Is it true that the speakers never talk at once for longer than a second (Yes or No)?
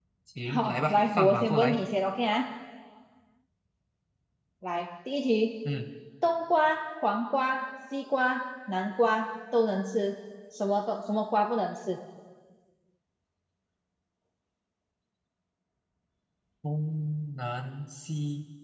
No